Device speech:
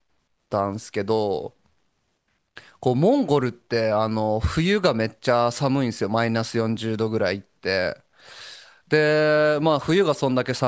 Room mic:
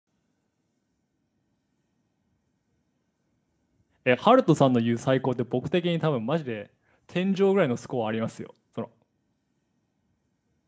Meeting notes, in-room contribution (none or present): present